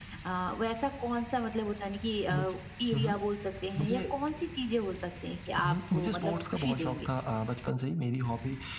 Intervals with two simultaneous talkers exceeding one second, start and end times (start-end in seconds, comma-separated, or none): 5.7-7.1